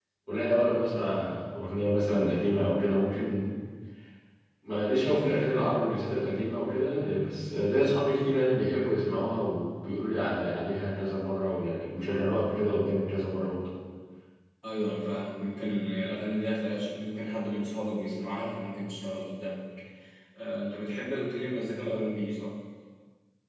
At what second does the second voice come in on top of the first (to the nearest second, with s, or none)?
none